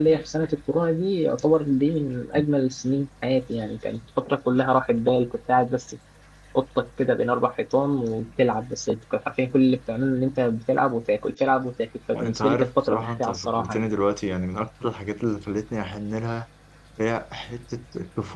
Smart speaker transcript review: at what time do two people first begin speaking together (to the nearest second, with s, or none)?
12 s